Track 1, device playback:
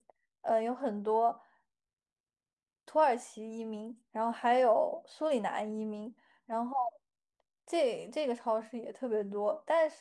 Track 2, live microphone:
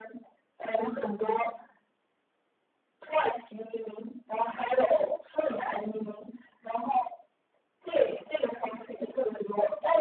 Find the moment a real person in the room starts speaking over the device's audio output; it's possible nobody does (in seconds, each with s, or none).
0.8 s